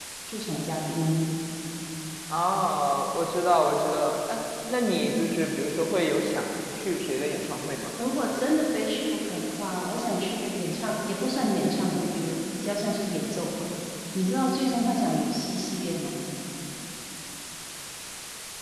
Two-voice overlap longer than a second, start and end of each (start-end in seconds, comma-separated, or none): none